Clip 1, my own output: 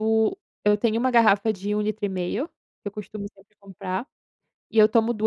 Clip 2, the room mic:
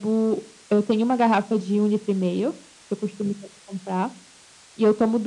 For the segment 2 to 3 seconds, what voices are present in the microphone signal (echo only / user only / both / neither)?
echo only